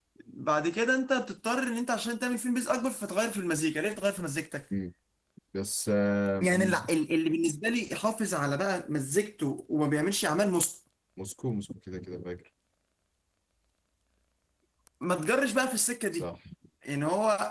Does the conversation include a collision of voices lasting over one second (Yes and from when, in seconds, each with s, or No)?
No